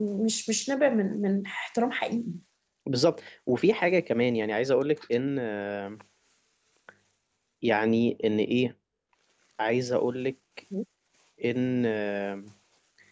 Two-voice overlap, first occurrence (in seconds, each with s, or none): none